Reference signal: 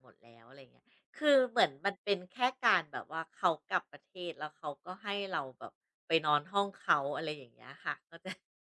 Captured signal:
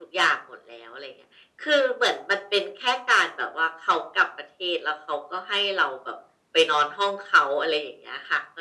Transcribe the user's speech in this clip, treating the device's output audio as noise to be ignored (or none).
none